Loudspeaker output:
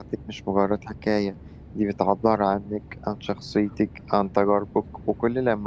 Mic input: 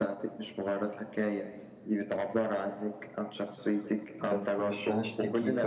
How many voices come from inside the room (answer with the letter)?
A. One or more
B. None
A